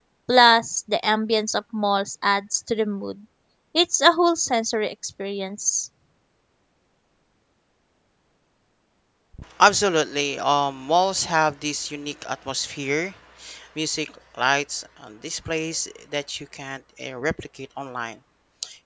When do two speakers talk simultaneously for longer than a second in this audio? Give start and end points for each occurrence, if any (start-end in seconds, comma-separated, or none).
none